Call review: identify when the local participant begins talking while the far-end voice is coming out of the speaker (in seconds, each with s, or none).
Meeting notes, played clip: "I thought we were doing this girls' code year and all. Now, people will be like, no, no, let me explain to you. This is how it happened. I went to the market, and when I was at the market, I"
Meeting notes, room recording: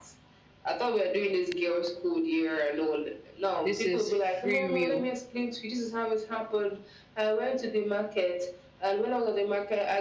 3.6 s